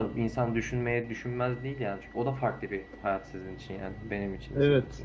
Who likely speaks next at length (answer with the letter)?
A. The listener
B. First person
A